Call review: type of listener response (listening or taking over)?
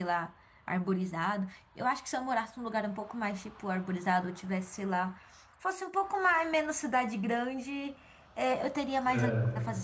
listening